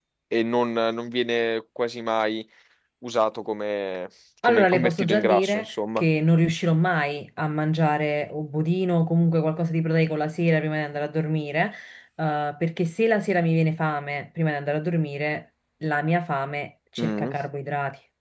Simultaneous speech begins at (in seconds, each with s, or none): 4.5 s